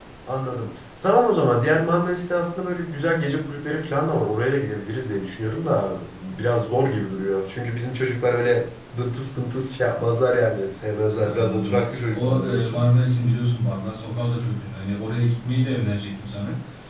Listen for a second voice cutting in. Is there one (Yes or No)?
Yes